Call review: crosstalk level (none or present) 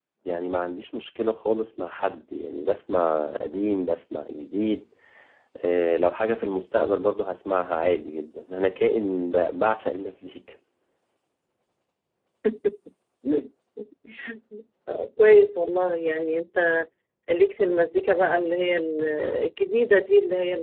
none